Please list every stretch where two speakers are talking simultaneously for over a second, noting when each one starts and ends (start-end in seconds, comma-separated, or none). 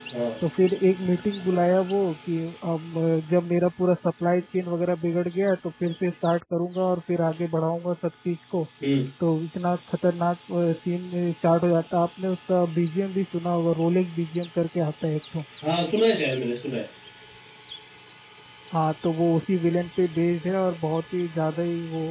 none